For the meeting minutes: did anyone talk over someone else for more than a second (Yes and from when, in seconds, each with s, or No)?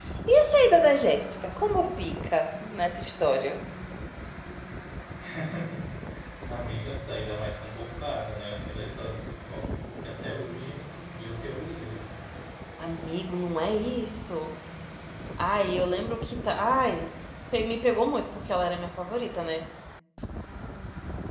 No